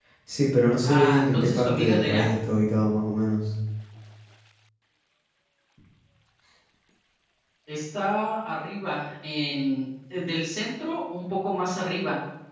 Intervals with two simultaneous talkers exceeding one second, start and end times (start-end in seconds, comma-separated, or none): 0.8-2.3